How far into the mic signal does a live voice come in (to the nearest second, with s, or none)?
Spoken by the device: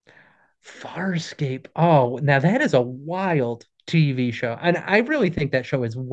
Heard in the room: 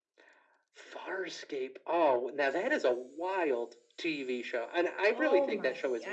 5 s